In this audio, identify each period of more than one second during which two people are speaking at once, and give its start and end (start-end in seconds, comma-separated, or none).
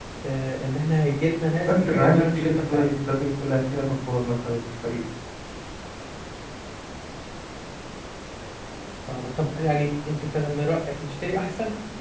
1.7-3.0